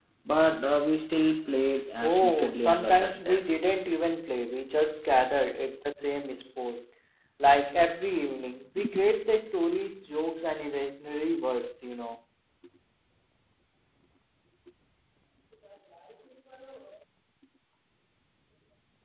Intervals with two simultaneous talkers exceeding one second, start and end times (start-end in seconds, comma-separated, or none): 2.0-3.5